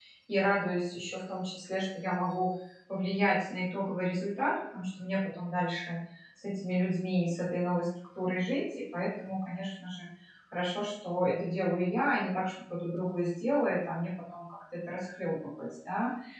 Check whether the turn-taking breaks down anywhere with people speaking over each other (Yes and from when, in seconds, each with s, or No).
No